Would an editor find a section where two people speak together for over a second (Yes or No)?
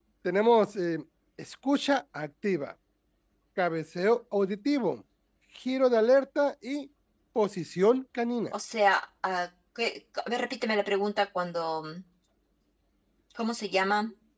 No